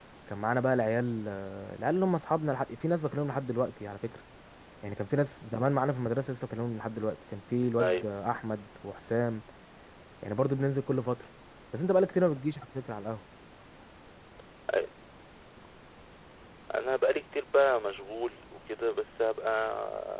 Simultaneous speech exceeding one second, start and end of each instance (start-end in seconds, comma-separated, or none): none